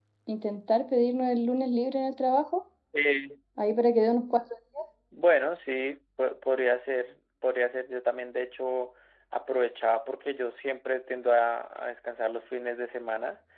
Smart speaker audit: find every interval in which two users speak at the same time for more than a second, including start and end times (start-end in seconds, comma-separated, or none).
none